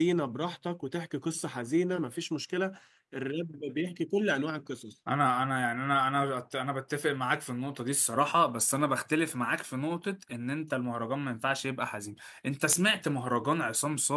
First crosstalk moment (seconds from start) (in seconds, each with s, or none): none